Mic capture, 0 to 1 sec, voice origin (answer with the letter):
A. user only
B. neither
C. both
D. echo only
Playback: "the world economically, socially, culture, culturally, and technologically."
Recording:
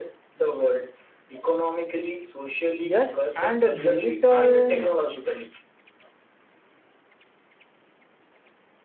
D